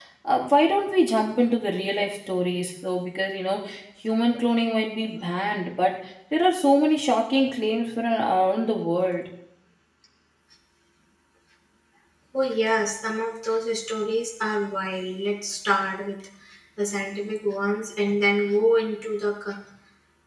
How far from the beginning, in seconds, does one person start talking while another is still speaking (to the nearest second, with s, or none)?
none